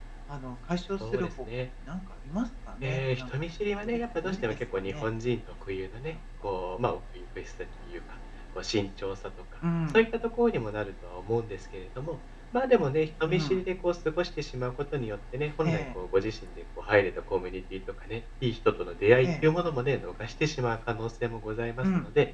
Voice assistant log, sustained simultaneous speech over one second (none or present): present